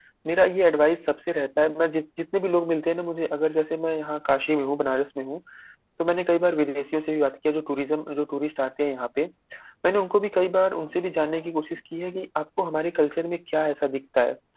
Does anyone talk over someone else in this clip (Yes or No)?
No